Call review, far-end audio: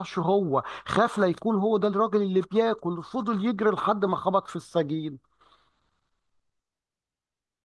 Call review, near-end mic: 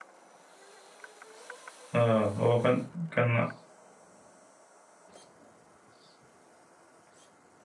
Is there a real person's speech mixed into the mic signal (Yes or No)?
Yes